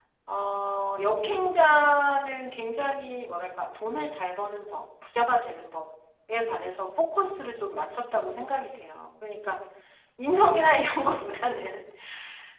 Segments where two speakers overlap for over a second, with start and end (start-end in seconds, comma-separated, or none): none